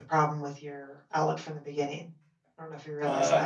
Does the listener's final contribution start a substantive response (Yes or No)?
Yes